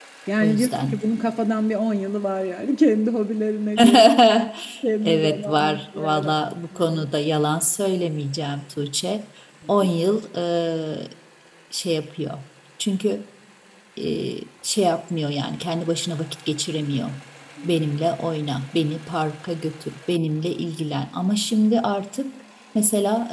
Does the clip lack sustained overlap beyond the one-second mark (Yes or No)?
No